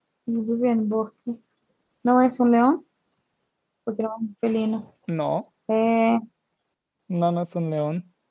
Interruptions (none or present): none